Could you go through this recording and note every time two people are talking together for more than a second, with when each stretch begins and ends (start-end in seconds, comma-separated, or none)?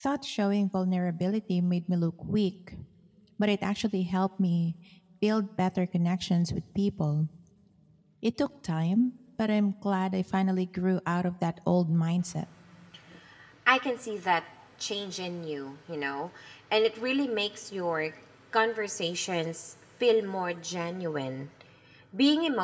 none